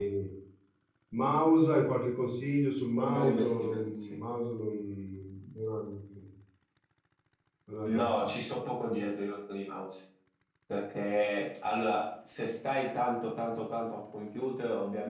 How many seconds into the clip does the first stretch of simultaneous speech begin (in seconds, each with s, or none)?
3.0 s